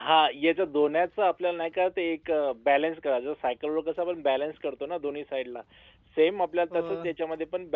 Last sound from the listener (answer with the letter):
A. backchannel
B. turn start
A